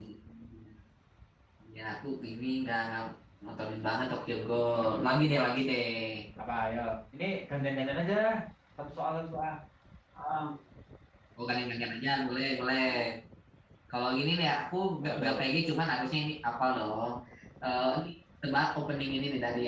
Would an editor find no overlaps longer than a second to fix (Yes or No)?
Yes